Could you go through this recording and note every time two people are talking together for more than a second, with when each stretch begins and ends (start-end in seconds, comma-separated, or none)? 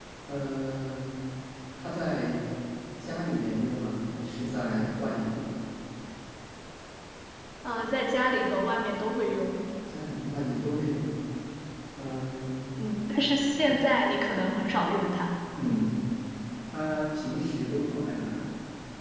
none